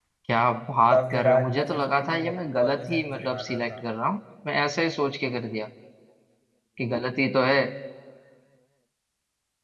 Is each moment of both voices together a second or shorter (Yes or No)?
No